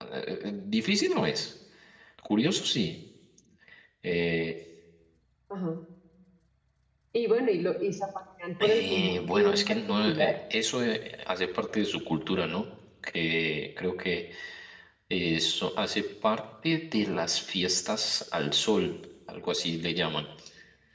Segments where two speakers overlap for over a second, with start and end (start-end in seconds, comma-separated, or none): 8.6-10.3